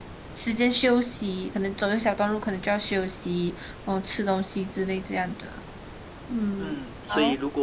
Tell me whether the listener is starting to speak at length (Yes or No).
Yes